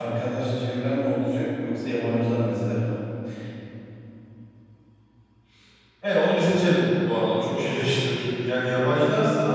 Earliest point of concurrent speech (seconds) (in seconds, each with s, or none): none